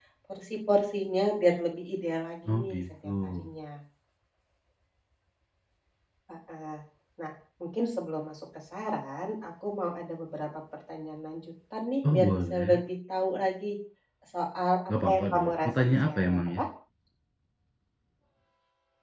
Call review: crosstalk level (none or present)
present